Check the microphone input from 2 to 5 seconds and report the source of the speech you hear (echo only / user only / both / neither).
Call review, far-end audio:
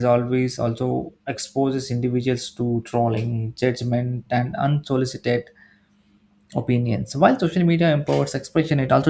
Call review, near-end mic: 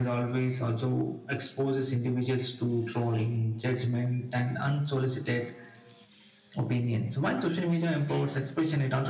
echo only